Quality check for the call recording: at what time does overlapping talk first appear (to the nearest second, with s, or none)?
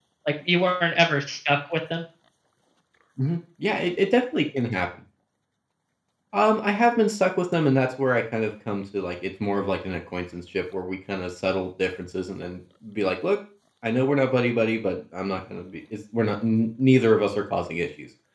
none